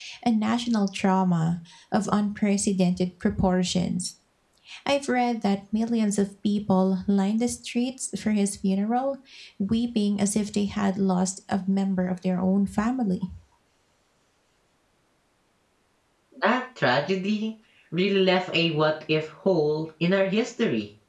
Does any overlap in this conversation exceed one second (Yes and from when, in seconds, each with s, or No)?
No